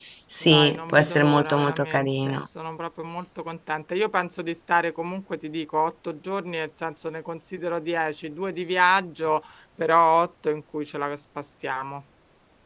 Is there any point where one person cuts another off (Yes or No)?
Yes